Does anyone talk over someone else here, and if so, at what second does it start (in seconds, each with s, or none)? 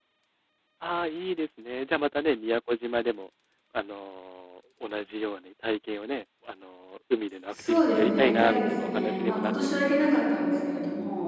7.5 s